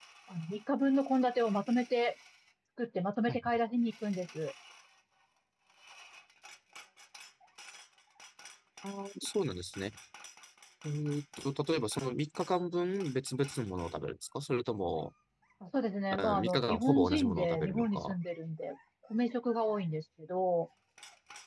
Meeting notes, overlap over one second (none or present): present